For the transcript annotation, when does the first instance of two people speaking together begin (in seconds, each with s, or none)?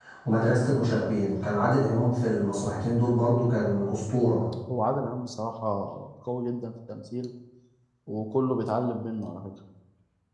none